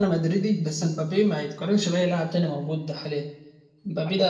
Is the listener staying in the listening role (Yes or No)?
Yes